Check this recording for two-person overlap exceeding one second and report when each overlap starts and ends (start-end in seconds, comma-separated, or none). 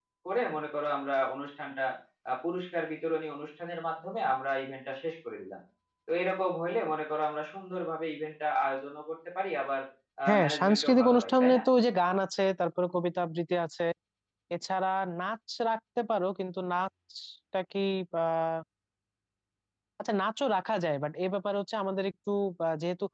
10.4-11.6